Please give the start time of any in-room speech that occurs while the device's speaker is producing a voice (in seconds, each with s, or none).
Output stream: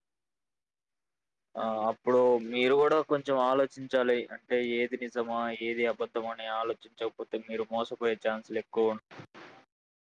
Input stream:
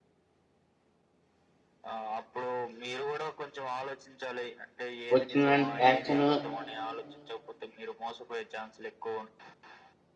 5.1 s